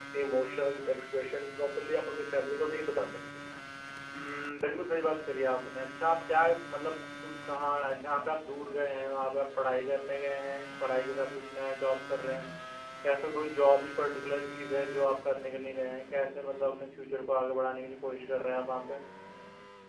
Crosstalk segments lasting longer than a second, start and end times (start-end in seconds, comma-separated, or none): none